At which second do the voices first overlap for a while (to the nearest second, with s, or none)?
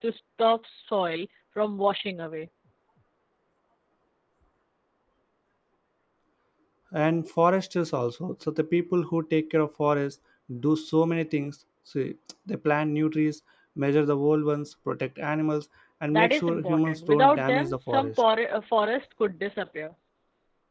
16 s